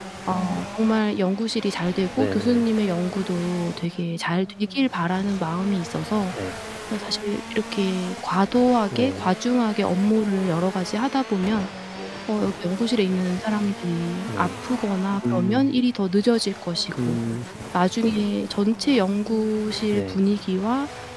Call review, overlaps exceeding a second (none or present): none